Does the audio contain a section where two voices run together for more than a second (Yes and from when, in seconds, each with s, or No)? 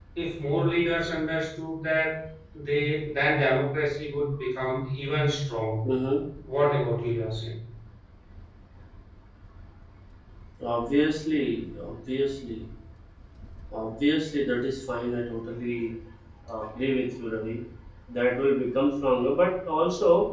No